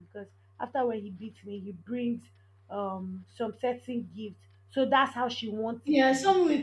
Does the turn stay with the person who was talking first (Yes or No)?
No